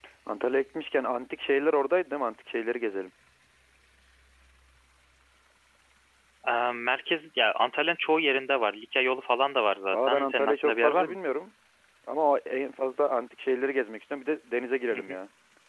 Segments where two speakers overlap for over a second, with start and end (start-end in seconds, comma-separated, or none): 9.9-11.2